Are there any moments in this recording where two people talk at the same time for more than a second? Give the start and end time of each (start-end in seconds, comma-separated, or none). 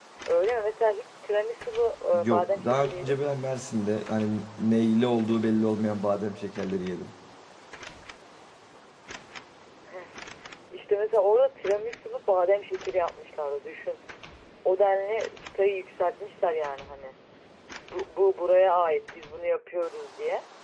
2.1-3.4